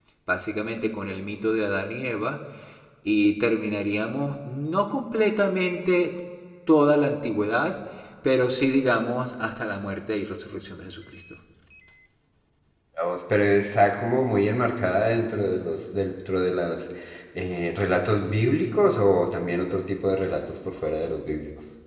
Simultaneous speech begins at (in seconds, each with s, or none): none